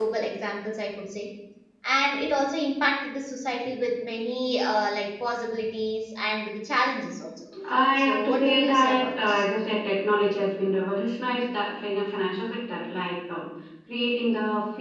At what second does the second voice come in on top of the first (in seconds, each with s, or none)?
8.0 s